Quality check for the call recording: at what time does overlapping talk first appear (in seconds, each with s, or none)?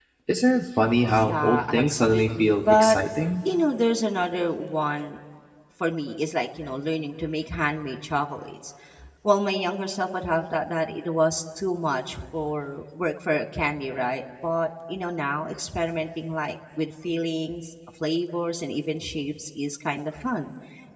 1.1 s